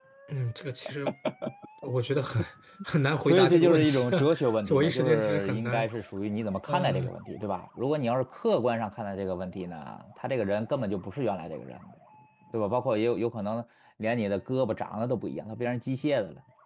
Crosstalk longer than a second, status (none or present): present